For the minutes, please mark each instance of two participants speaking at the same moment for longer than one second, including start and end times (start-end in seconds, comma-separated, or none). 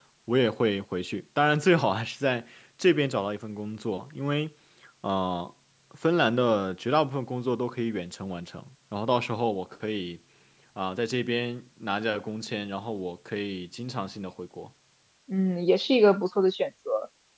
none